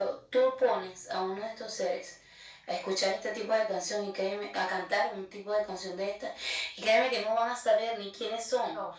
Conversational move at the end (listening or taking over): listening